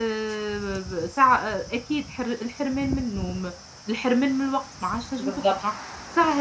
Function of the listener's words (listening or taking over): listening